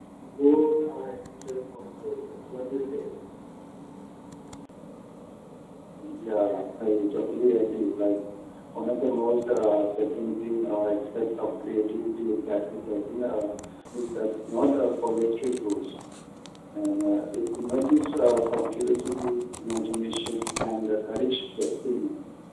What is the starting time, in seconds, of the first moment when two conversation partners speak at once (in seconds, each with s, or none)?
none